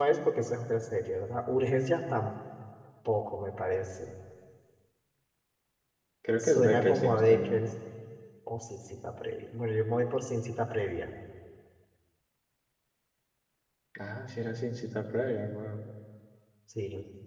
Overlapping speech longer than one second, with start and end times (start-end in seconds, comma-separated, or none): 6.4-7.6